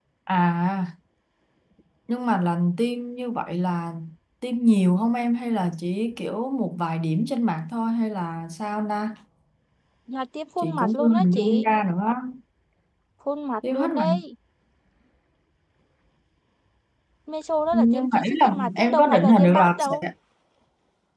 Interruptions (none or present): present